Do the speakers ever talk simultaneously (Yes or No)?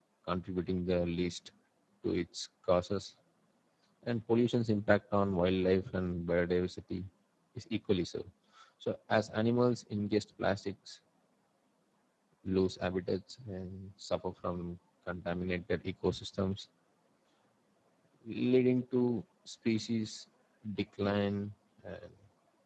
No